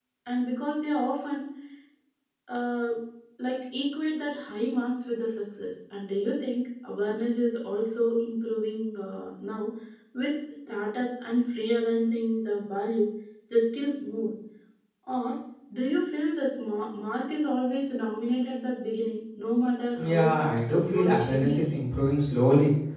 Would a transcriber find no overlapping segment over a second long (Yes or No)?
No